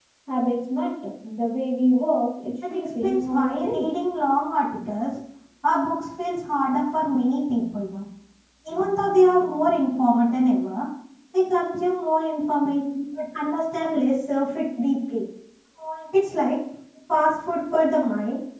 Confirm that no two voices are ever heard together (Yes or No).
No